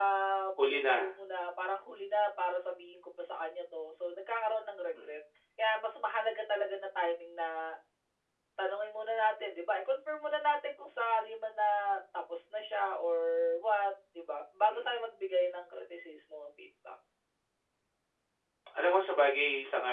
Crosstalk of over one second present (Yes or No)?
No